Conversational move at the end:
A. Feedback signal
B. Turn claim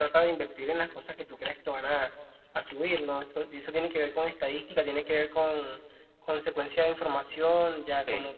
A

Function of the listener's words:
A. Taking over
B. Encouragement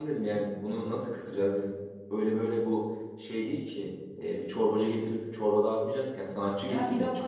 A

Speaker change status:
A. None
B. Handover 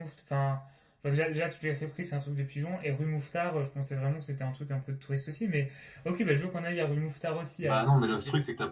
B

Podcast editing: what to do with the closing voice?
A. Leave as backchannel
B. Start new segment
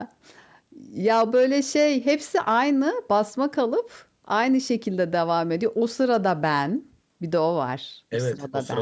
B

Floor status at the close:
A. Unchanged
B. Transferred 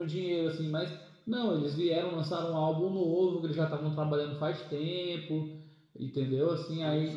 A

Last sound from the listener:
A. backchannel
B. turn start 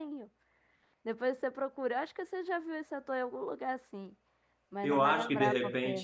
B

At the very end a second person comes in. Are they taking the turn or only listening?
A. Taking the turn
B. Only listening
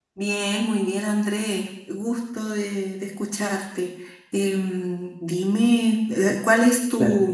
A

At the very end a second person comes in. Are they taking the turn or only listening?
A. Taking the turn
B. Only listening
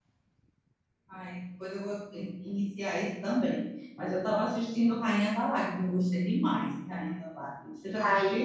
A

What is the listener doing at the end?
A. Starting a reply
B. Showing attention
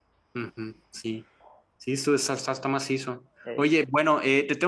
B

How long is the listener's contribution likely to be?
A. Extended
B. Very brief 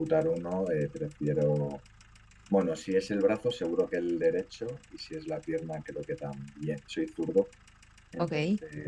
B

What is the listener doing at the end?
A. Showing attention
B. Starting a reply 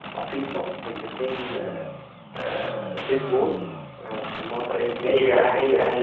B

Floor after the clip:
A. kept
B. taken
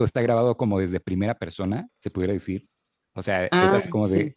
A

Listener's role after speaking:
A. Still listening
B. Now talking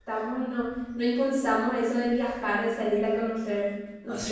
B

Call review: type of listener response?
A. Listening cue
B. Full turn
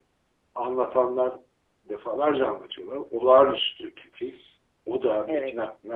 A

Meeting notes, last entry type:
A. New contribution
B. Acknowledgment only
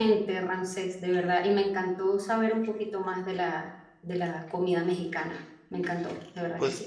A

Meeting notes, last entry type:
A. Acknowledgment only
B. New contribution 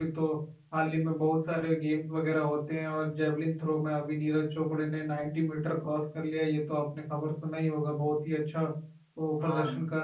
A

